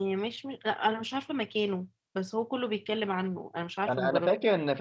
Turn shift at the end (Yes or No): Yes